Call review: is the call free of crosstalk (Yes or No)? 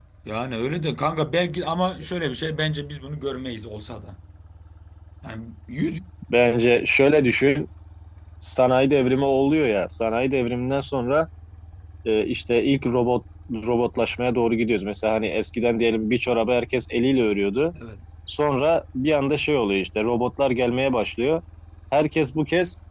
Yes